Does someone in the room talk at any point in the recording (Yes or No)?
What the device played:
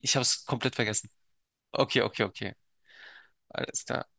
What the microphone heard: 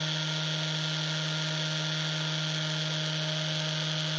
No